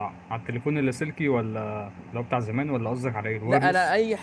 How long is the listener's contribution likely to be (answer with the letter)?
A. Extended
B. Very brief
A